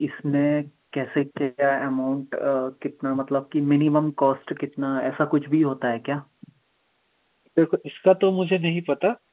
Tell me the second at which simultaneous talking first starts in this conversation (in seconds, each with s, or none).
none